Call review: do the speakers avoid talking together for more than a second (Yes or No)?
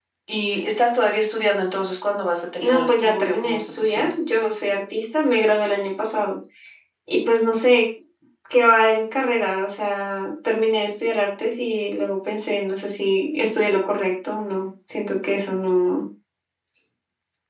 No